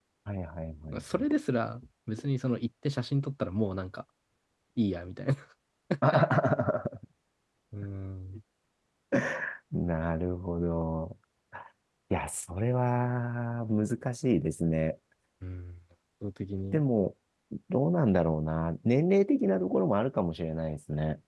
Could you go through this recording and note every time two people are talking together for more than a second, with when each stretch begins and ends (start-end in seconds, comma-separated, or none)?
none